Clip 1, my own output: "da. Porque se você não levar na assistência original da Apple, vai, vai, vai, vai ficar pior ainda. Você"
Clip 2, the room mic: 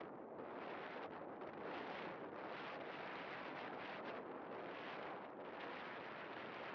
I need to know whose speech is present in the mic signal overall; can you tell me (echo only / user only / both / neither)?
neither